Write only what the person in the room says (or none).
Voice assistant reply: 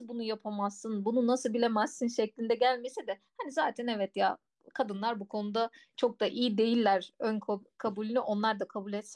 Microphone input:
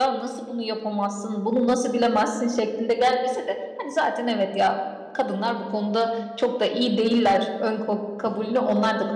none